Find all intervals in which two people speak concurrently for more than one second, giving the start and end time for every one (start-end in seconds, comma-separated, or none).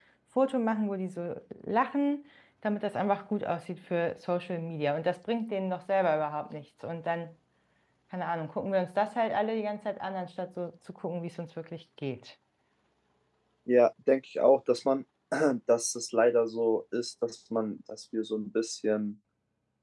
none